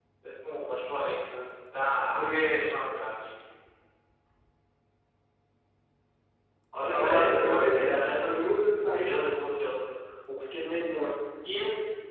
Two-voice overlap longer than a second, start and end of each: 6.9-9.3

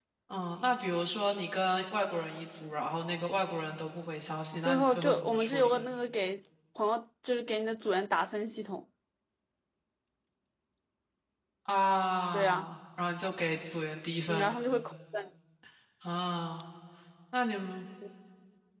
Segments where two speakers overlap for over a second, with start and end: 4.6-5.8

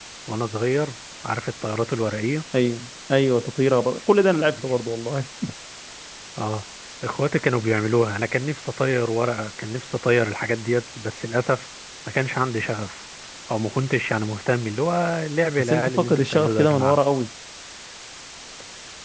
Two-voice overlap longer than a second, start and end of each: 15.6-17.0

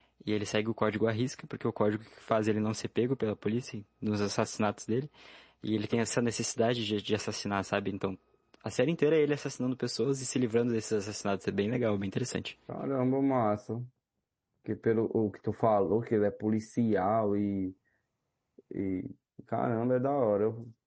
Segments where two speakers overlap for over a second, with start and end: none

